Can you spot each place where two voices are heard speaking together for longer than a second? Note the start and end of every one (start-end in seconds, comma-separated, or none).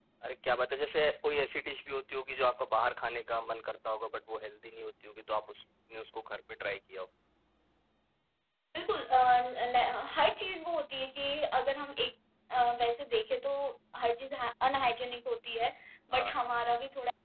none